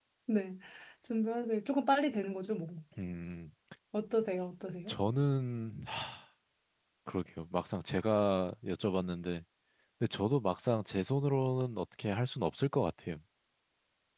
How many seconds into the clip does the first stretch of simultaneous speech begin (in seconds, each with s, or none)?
none